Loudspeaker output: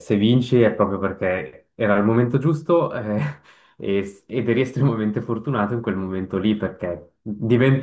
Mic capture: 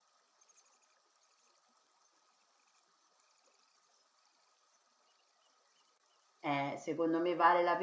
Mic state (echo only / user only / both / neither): user only